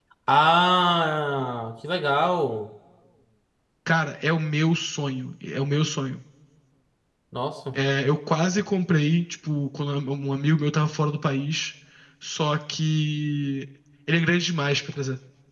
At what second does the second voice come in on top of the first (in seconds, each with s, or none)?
none